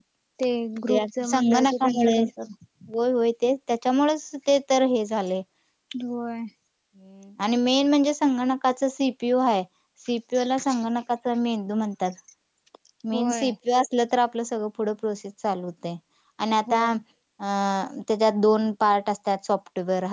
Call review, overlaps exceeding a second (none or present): present